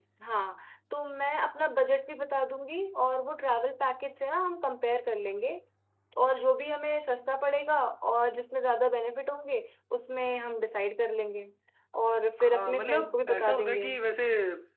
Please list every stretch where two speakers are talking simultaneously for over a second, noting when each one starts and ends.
12.4-13.9

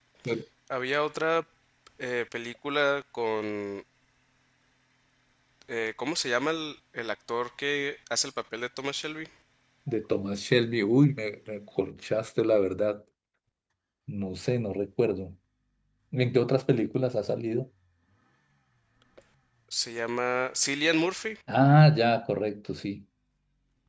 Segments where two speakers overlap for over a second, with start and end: none

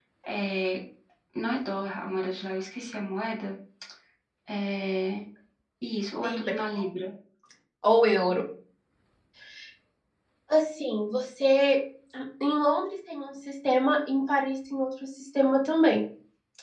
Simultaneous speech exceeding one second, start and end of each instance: none

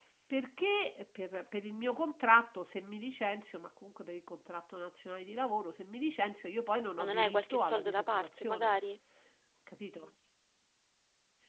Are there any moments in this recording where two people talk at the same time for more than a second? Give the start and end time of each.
7.0-8.7

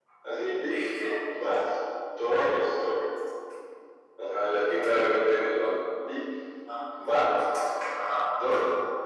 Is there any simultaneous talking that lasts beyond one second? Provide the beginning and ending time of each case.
none

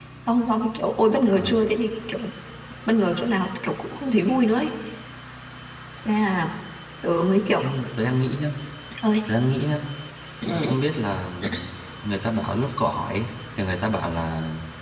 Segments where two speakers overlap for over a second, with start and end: none

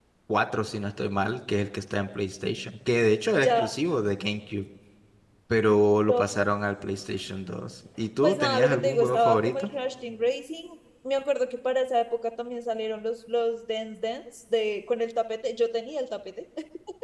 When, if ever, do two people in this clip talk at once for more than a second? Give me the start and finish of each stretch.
8.2-9.7

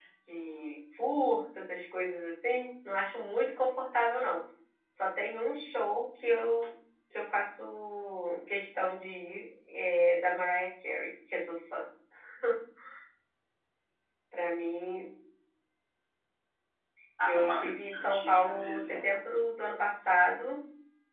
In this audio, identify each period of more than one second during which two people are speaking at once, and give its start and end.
17.3-19.1

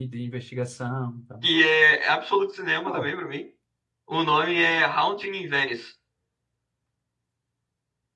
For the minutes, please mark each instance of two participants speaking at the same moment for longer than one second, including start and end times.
none

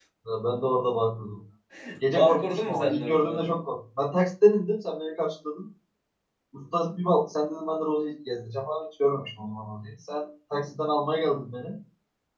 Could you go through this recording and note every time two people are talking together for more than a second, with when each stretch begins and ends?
2.1-3.6

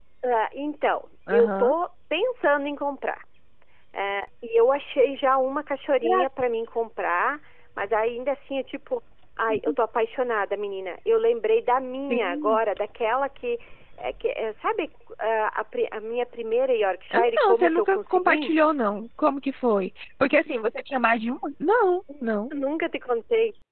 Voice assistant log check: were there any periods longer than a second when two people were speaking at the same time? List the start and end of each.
17.1-18.5

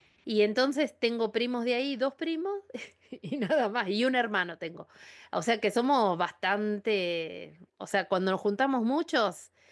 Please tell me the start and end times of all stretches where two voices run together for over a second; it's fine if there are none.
none

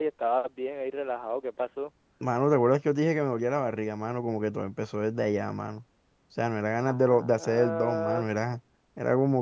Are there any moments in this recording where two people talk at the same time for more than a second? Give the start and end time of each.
6.9-8.3

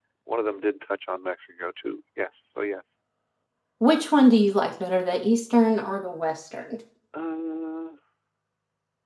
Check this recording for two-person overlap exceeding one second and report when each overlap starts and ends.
none

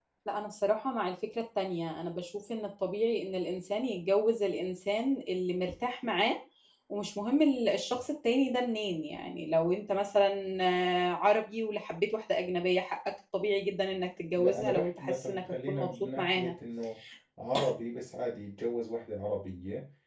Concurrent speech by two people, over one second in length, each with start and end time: 14.4-16.5

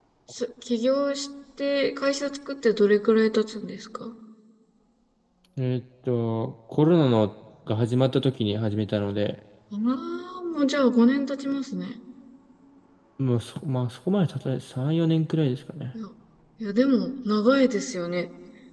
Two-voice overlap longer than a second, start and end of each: none

